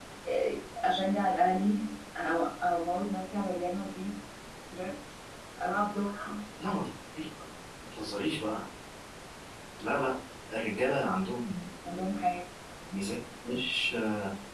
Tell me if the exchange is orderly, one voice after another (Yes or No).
Yes